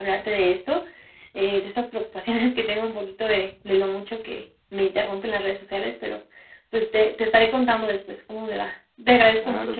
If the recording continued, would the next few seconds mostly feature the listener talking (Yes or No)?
Yes